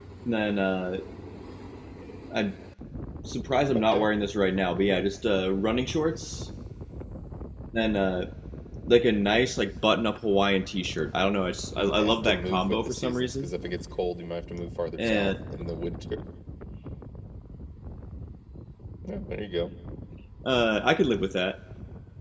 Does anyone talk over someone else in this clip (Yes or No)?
Yes